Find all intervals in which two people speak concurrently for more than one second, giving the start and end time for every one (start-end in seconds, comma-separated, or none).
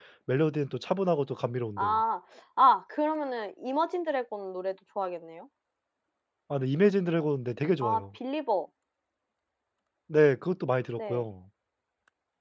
none